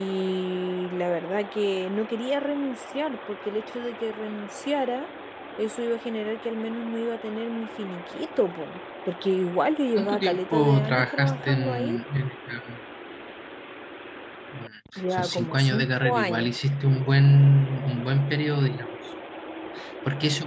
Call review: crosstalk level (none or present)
present